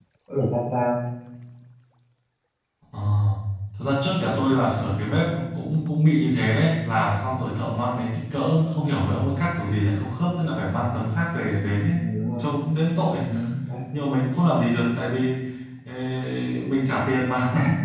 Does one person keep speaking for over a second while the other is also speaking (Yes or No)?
No